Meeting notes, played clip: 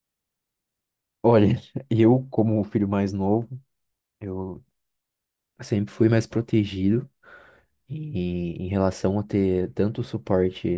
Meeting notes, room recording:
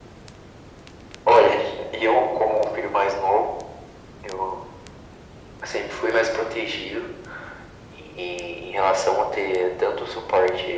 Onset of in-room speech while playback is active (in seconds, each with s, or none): none